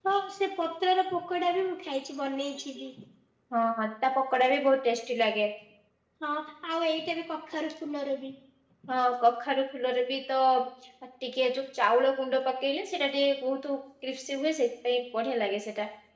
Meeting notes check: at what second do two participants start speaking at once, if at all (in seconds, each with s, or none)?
none